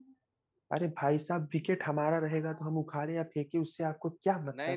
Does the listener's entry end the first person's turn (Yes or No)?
Yes